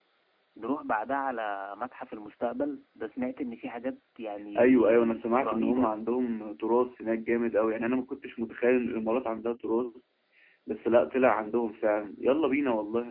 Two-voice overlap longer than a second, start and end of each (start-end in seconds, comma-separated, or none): 4.6-5.9